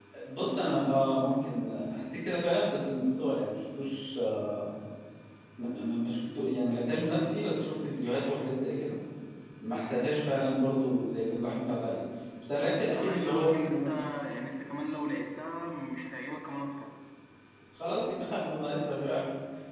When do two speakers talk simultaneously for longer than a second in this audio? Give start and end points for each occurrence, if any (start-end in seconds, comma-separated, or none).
12.6-13.8